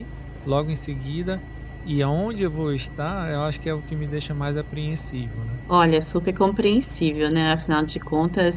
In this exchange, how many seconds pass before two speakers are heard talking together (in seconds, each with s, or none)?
none